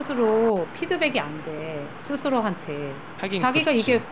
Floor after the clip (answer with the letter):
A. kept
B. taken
A